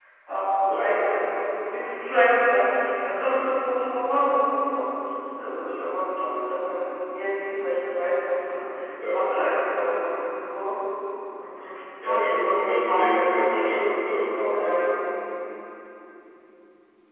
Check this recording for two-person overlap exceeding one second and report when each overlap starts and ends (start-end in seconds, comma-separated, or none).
12.0-13.7